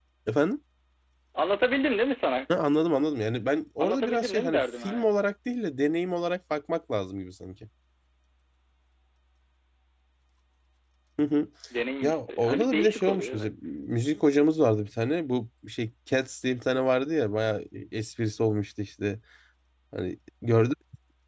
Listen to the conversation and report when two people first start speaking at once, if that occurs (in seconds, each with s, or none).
3.8 s